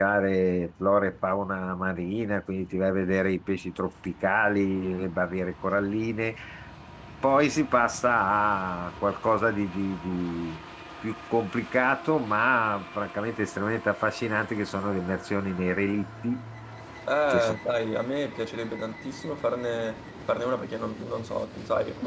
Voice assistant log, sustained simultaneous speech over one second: none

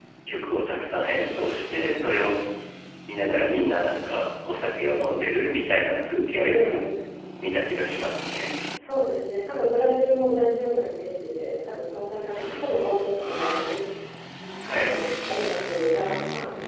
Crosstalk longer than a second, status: none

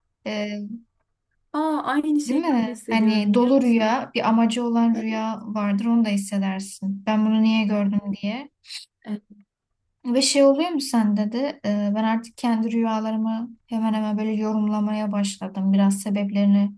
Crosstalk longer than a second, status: present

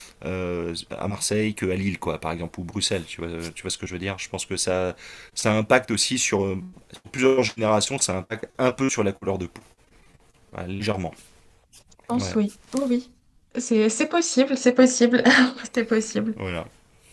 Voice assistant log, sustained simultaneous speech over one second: none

